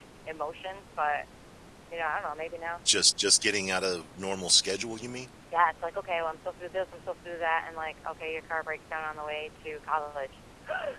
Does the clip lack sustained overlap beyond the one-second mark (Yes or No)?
Yes